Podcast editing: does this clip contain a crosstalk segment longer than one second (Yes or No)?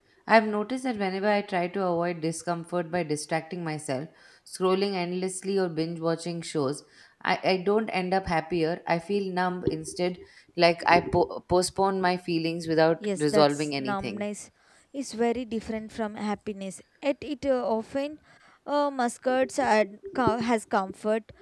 Yes